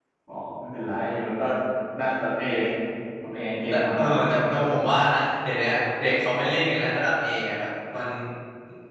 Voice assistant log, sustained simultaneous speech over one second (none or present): none